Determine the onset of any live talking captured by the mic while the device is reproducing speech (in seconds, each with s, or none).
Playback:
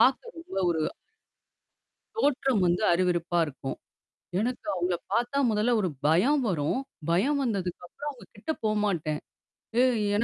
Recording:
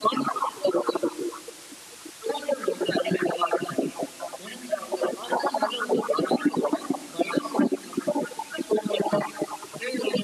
none